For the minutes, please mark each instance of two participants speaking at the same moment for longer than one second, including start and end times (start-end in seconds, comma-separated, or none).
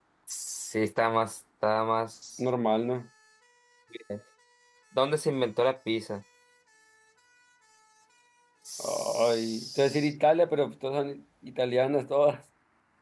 8.8-10.1